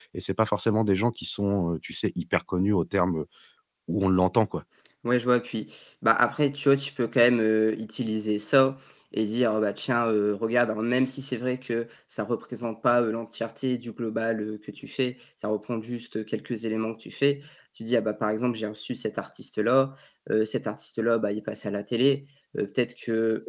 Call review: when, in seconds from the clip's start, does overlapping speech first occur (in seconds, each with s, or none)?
none